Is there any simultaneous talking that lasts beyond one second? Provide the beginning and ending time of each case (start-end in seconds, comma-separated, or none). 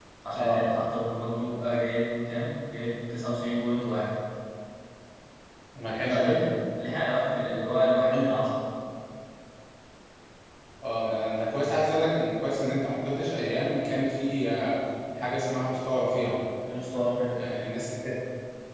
none